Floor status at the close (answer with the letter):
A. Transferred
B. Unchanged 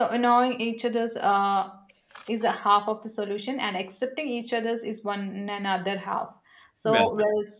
B